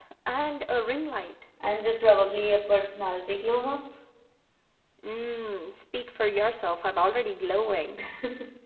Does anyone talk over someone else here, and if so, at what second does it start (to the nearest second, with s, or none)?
none